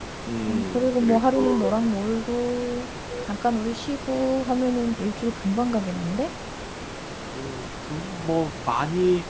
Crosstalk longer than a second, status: present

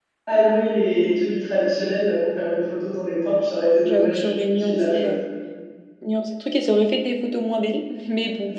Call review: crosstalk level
present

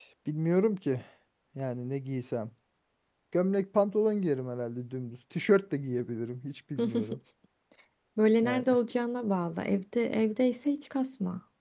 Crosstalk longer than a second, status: none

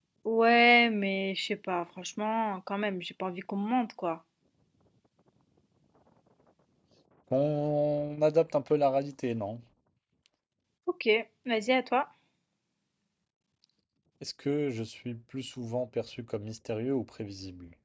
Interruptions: none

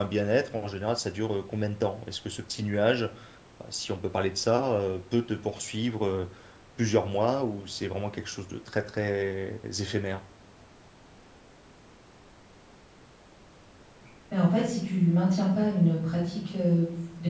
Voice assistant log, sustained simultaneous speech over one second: none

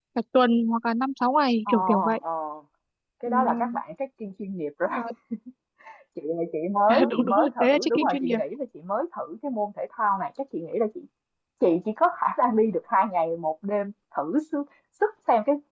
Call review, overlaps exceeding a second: present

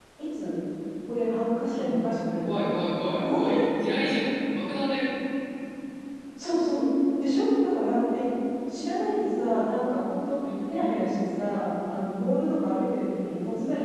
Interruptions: present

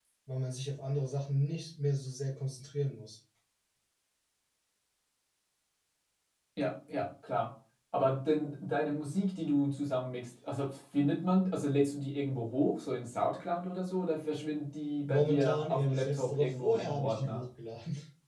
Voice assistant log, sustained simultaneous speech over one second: present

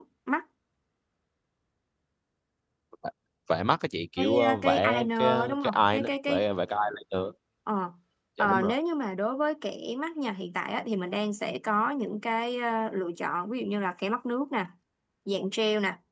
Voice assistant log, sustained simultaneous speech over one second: present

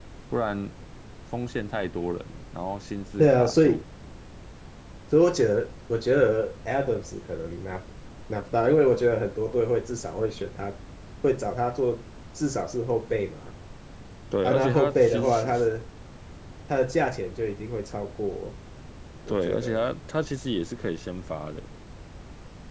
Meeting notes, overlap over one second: present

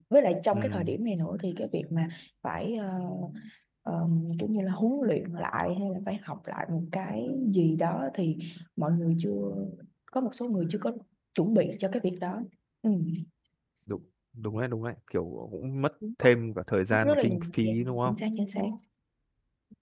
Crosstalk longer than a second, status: present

